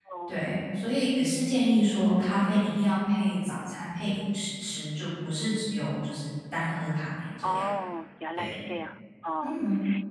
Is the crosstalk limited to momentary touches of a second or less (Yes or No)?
Yes